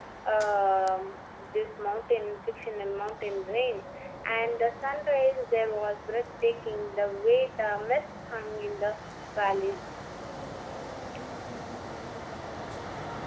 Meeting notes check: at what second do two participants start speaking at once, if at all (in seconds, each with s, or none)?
none